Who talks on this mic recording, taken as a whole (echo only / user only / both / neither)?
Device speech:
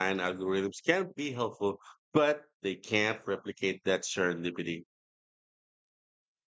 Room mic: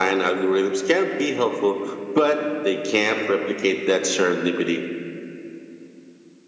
echo only